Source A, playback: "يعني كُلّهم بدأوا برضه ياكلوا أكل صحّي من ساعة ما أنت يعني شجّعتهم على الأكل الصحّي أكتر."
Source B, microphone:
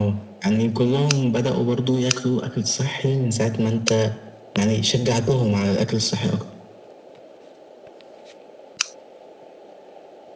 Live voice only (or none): none